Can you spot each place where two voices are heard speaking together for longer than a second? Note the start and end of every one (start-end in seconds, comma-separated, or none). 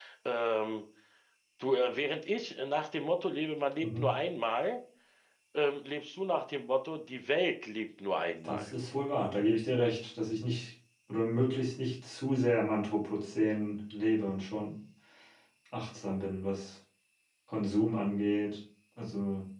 none